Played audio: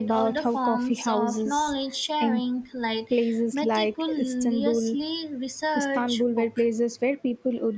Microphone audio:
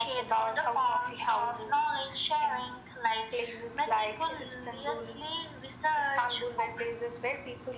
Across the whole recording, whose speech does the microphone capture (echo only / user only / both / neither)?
echo only